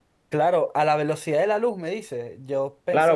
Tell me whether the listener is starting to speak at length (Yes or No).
Yes